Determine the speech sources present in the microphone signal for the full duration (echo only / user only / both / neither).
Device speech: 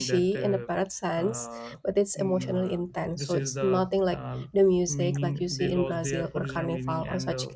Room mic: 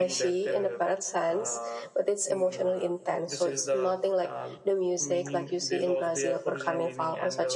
echo only